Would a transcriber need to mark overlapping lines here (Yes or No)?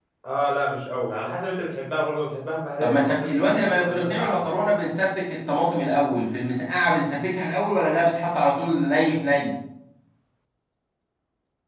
Yes